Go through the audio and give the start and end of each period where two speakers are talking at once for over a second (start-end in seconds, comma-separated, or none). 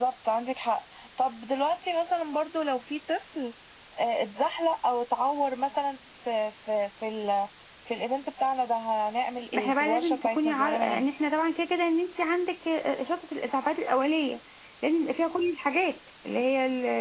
9.5-11.0